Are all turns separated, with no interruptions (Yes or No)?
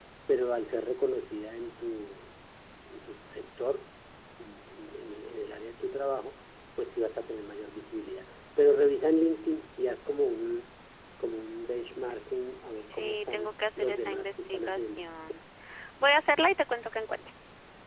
No